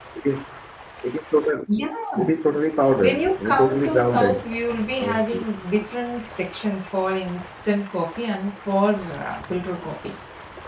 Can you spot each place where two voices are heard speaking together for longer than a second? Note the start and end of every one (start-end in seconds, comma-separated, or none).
3.0-4.4